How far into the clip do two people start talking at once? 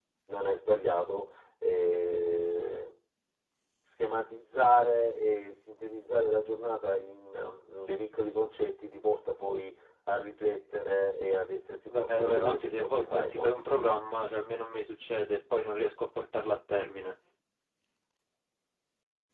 11.9 s

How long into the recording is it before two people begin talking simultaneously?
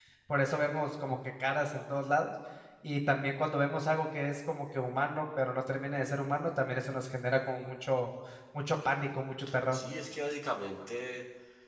none

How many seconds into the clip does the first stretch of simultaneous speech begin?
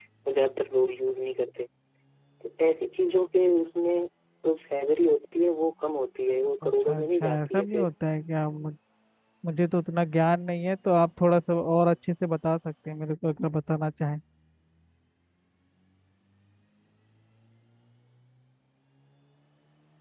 6.6 s

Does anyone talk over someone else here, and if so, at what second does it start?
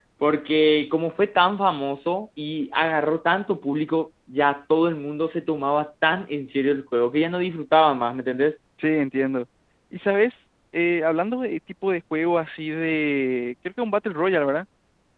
none

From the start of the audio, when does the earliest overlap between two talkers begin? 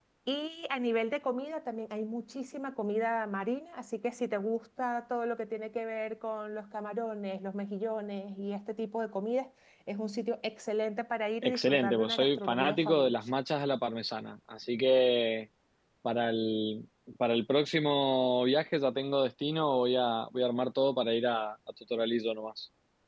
11.4 s

